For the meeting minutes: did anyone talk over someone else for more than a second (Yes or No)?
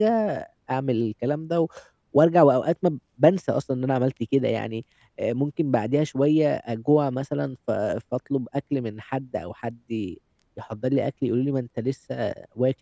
No